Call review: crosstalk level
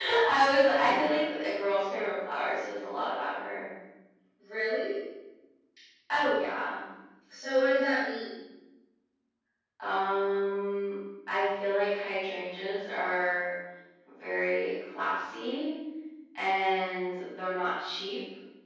none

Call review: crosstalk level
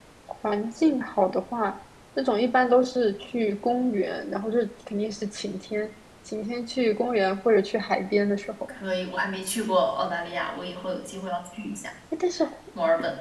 none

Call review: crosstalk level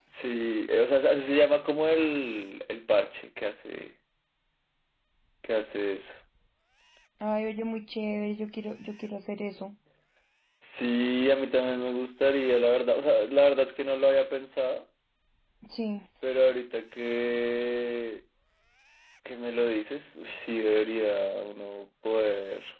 none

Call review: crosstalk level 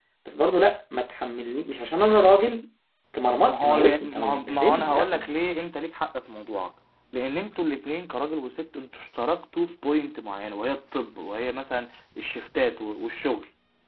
present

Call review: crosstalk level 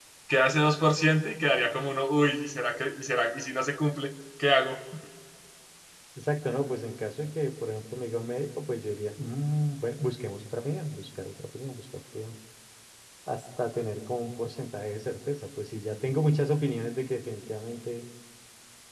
none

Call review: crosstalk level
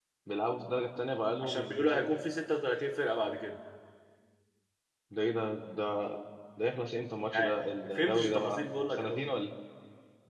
present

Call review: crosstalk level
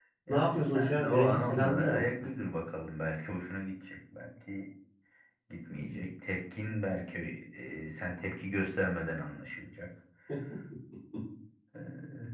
present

